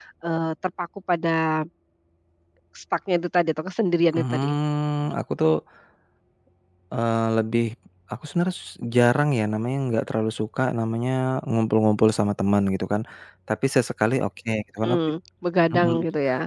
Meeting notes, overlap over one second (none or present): none